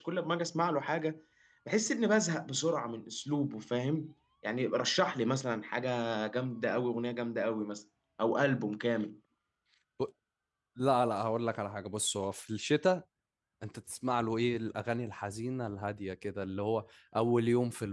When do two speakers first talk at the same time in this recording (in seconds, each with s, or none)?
none